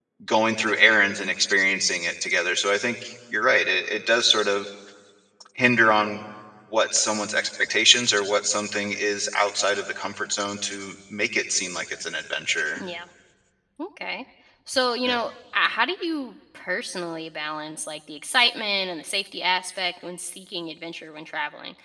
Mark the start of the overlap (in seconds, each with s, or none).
none